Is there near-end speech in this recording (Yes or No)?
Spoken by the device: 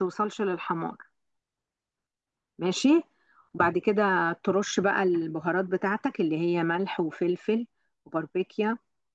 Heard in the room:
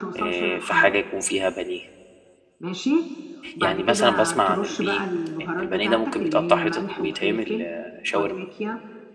Yes